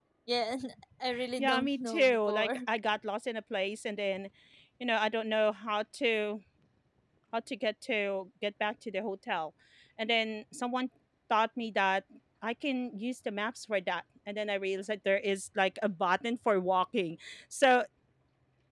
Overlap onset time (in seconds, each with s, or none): 1.4 s